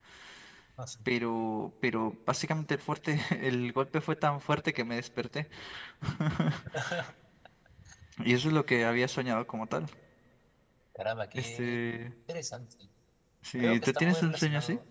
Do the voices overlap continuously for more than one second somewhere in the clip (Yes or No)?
Yes